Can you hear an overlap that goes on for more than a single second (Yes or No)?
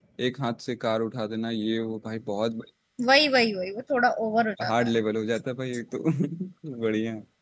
No